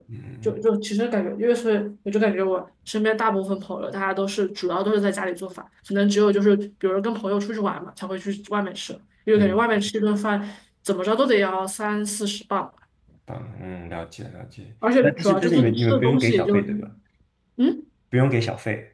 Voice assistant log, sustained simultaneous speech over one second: present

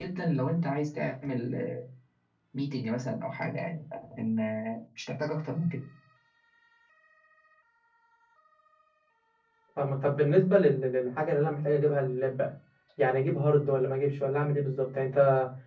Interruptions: none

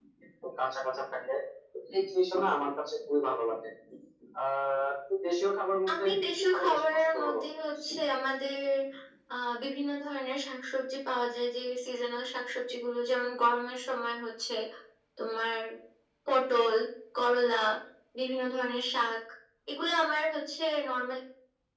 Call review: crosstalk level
present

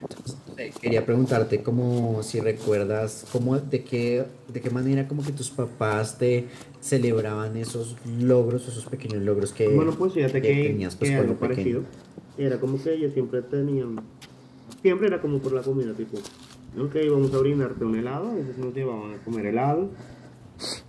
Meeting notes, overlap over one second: present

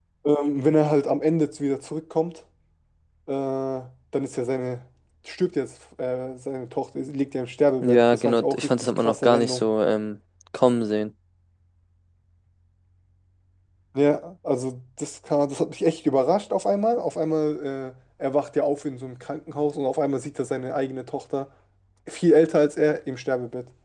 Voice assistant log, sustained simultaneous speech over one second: present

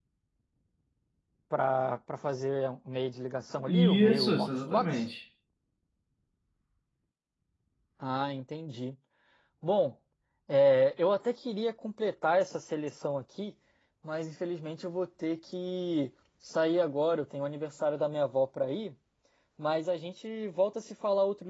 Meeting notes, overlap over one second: present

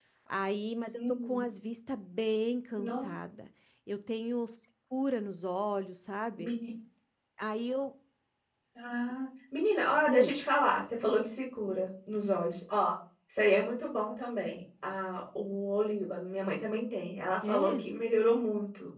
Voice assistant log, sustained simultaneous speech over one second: none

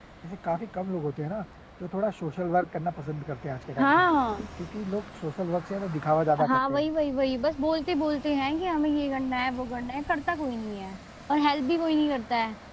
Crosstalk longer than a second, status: none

